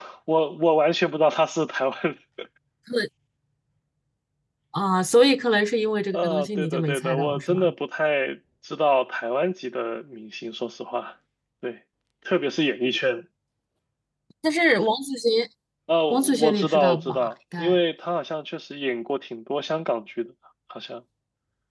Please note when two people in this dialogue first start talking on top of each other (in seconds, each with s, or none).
6.1 s